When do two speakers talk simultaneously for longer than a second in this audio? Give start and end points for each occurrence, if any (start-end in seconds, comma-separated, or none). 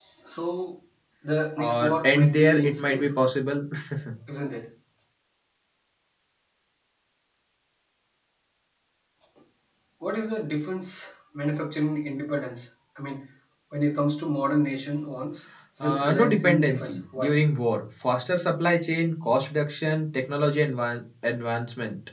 1.6-3.1, 15.8-17.4